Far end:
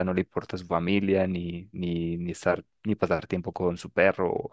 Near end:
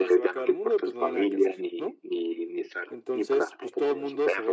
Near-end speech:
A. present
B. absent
A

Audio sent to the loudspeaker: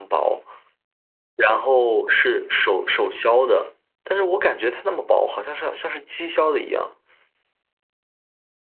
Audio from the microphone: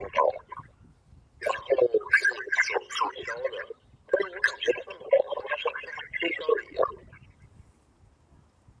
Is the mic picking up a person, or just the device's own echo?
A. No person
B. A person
A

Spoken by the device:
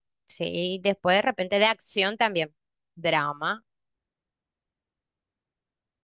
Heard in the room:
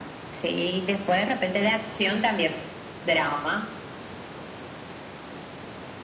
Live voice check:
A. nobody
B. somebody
A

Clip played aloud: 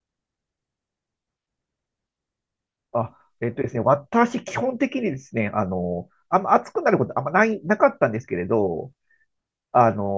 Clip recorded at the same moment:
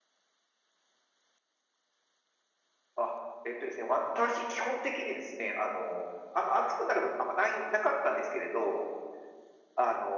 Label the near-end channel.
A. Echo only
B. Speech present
A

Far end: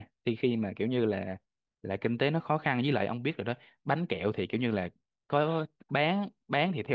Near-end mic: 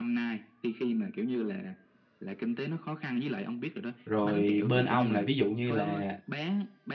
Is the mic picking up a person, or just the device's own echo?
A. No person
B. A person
B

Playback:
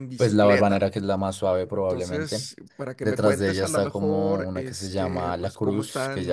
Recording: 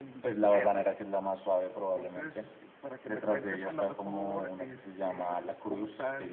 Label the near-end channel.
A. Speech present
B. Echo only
B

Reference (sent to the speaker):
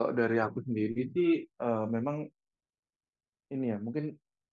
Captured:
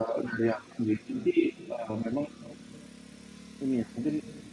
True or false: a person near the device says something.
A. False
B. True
A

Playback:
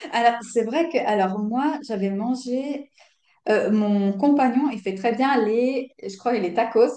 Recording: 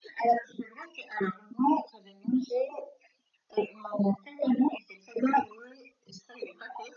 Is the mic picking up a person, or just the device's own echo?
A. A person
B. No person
B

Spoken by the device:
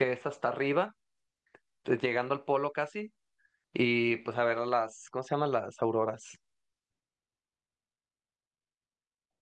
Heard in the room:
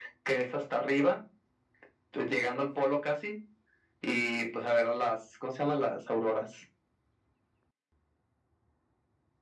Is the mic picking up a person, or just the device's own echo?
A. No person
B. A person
A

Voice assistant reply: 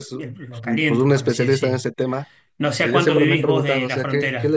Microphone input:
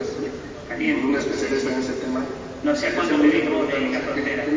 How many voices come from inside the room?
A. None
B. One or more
A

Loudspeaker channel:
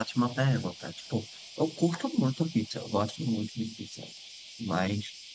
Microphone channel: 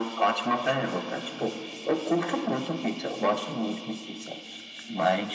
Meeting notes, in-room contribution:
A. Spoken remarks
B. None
B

